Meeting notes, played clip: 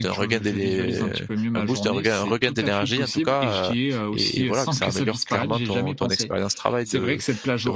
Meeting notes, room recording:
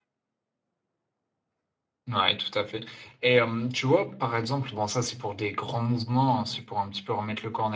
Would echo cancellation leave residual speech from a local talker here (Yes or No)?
Yes